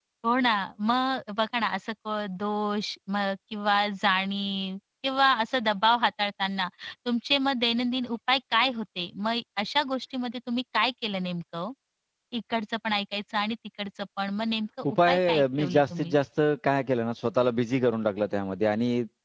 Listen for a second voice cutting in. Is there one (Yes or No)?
Yes